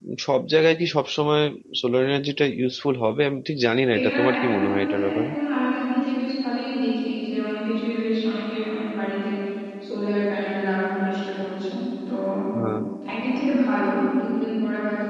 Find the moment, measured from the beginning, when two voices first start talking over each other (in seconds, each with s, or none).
3.9 s